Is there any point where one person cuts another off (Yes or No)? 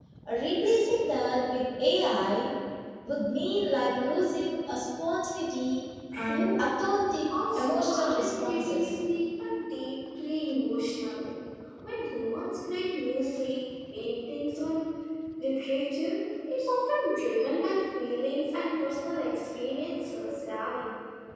Yes